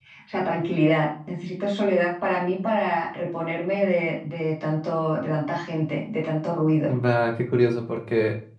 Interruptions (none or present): none